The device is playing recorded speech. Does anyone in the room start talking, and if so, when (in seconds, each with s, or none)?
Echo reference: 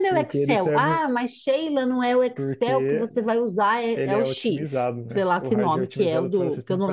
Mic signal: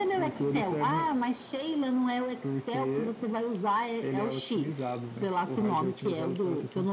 none